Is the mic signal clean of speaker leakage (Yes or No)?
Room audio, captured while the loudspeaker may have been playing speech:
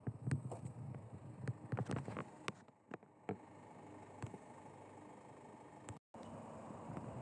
Yes